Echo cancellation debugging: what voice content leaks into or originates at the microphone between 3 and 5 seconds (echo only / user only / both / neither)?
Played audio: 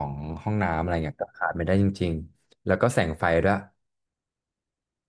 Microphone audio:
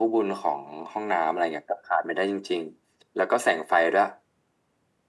echo only